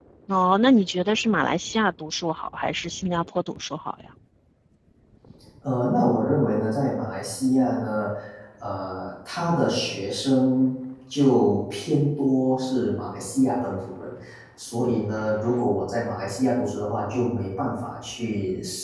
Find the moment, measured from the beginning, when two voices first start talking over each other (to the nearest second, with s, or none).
none